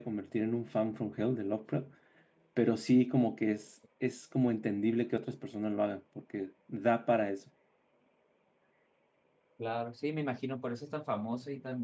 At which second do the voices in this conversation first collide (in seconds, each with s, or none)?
none